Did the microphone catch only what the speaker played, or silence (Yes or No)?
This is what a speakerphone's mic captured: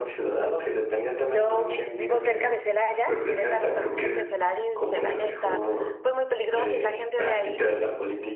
No